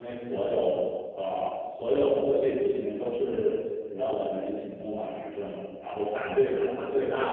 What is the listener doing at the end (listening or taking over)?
listening